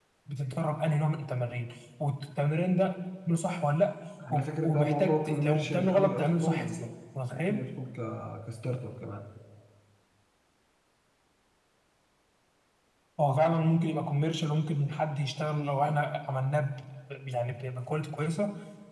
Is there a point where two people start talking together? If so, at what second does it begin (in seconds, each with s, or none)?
4.3 s